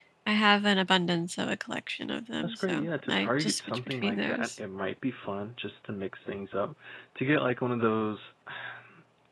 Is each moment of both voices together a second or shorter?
No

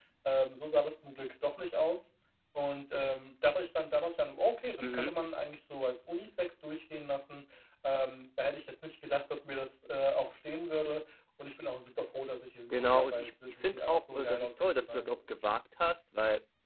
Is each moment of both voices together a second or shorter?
No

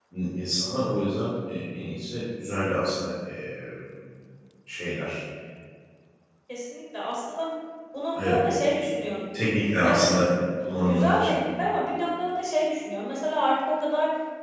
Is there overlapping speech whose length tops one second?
No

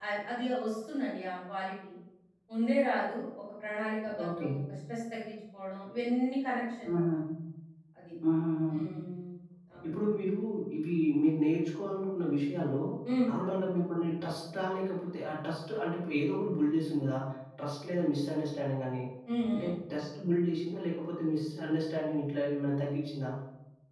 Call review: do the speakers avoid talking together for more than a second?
Yes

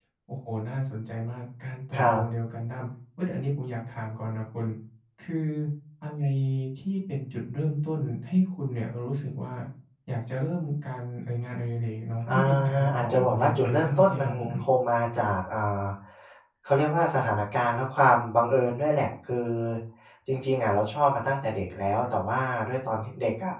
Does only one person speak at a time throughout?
No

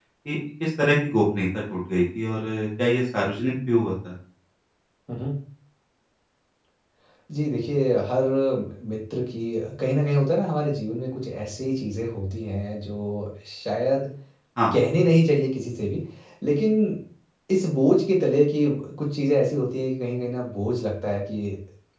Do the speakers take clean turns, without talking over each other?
Yes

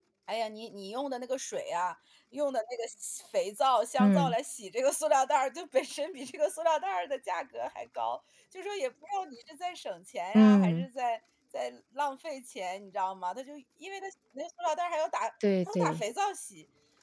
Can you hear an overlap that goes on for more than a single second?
No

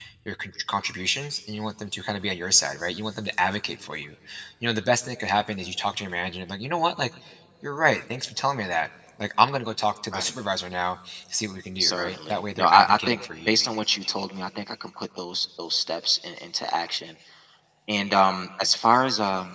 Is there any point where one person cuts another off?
Yes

